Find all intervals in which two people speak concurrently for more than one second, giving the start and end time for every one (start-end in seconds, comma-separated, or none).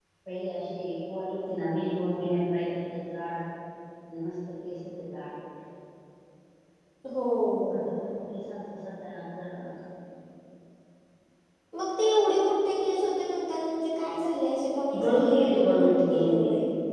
15.0-16.3